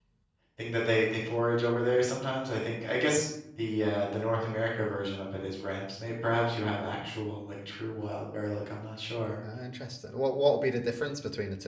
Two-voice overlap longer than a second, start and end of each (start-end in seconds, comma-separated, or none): none